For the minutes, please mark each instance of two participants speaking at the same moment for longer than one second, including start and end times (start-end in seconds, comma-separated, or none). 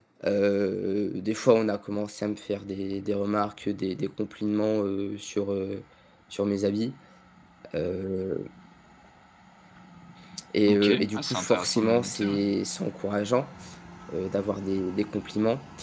10.7-12.4